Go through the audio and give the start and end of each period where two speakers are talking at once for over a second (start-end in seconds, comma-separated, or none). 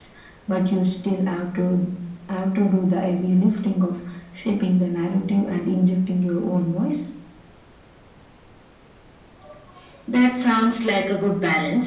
none